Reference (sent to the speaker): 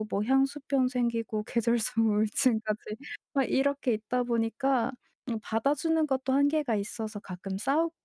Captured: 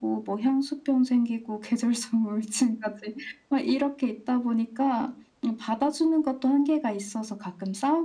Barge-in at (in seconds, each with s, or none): none